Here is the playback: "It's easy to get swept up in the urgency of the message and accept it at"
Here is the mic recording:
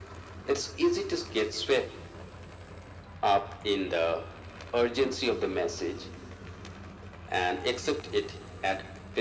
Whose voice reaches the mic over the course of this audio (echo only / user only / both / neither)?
echo only